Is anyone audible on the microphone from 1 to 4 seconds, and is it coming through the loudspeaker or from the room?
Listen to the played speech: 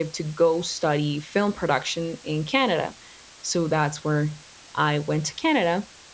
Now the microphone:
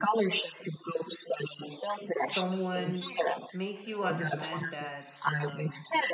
both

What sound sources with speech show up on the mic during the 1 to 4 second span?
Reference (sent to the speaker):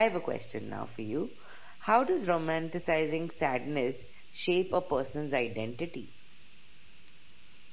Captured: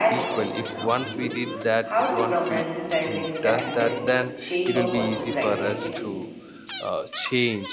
both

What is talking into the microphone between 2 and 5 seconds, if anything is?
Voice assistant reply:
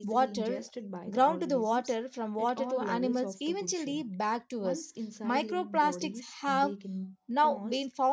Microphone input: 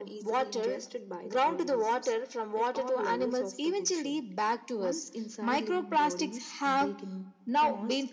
echo only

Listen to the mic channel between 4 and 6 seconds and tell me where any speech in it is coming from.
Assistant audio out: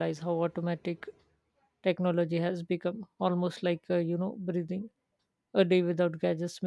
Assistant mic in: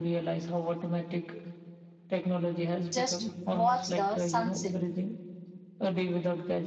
both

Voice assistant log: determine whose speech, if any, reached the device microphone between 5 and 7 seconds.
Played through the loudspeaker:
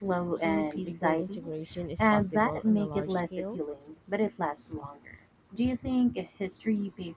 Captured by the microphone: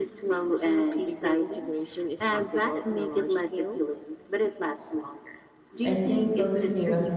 both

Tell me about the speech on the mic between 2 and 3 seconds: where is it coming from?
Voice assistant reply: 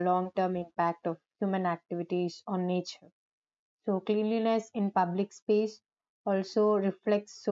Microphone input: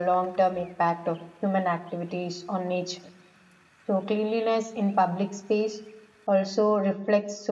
echo only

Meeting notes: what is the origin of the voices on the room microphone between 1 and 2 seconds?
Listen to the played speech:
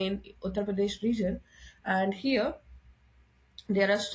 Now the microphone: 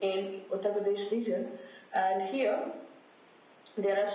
echo only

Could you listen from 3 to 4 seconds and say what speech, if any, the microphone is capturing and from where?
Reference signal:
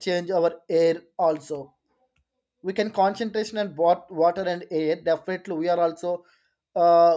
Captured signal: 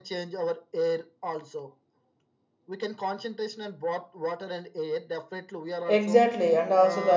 echo only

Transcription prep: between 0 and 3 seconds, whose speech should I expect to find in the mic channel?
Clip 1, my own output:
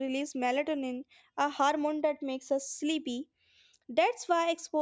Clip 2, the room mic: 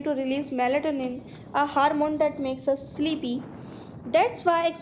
echo only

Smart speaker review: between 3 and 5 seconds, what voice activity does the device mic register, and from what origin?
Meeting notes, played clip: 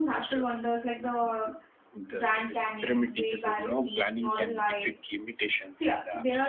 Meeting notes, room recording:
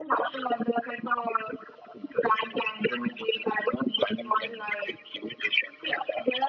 echo only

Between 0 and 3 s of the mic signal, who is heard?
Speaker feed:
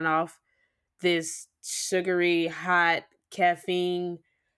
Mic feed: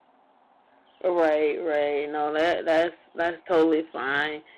user only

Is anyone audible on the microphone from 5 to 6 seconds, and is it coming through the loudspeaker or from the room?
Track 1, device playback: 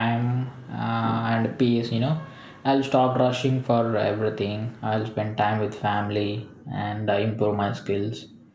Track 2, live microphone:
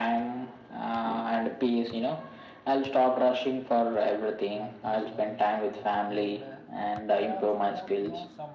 both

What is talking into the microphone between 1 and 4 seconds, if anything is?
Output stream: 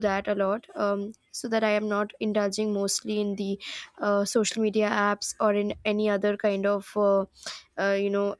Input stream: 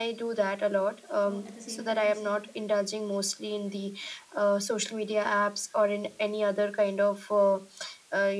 both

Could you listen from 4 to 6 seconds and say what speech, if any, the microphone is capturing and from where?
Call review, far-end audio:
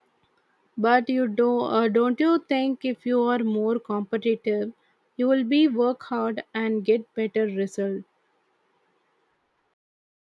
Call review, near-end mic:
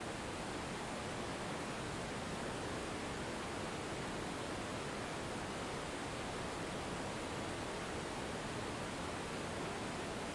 neither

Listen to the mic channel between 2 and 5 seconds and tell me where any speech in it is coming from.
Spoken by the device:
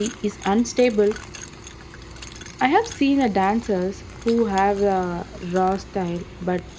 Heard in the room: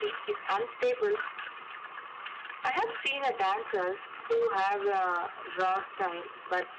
echo only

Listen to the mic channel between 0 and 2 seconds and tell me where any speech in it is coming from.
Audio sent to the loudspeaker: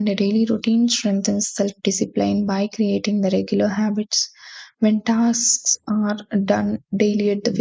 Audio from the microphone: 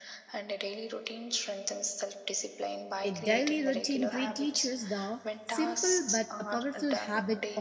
echo only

